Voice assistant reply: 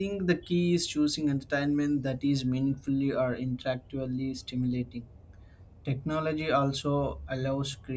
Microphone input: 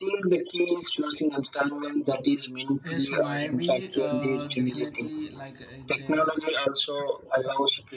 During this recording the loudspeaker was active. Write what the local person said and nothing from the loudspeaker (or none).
Yes, maybe uh, definitely like it's a